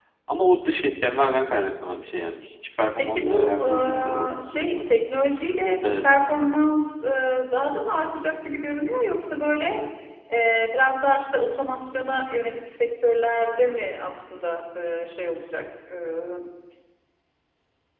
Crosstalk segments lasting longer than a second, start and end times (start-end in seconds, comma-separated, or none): 3.0-5.0